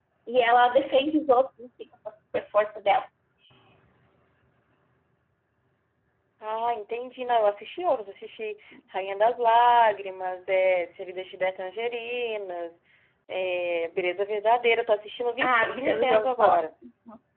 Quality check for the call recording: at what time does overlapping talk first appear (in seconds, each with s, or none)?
15.4 s